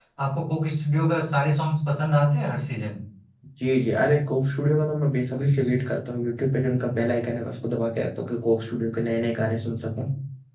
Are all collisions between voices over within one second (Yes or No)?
Yes